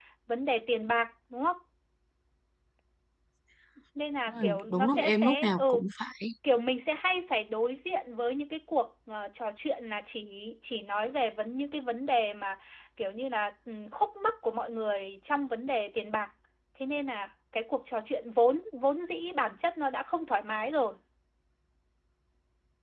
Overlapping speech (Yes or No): Yes